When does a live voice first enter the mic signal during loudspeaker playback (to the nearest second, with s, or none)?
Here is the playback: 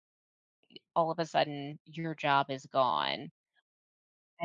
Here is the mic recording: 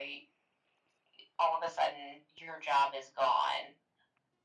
none